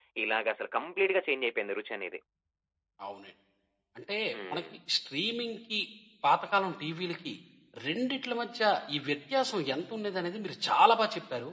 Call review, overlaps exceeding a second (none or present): none